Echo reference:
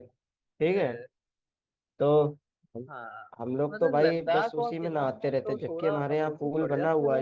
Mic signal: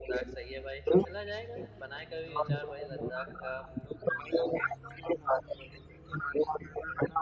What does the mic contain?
both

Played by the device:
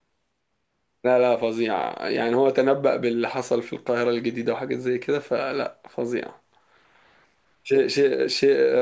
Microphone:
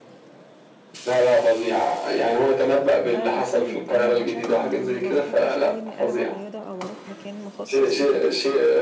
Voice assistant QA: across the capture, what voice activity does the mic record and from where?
both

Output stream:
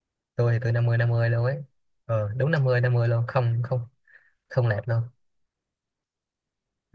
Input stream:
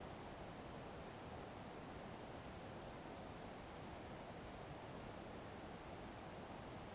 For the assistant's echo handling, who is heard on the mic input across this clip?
neither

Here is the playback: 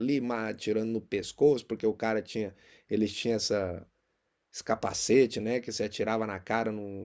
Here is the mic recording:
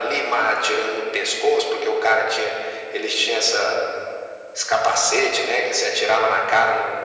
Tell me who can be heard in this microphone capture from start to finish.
echo only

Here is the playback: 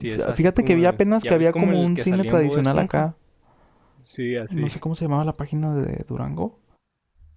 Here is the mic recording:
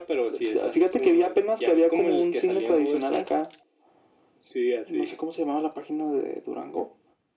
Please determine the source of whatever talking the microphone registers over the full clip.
echo only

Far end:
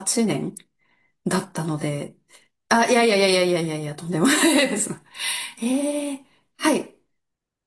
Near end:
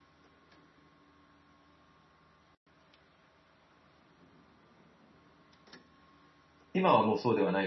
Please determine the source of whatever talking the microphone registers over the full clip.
user only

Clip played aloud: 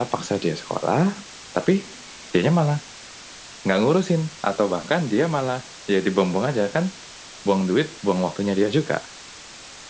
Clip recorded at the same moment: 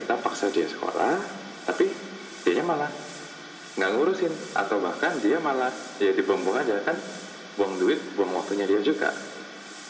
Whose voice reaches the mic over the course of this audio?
echo only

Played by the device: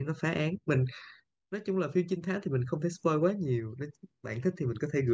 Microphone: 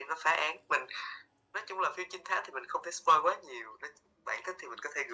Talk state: echo only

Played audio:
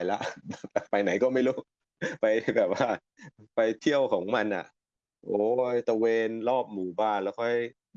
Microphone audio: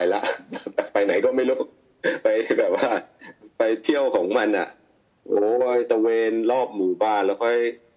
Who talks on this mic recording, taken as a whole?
echo only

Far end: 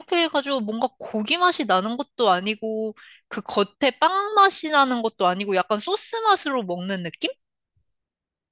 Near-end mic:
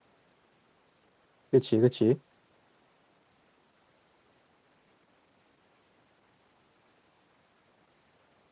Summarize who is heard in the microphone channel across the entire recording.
user only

